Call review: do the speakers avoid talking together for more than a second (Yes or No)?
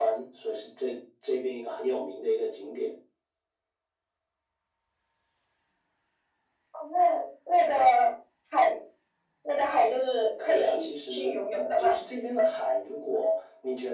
No